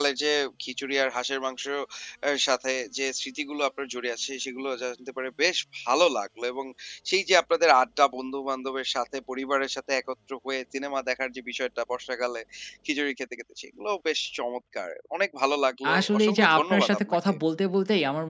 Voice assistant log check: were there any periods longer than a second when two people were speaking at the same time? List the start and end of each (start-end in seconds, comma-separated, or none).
15.9-17.3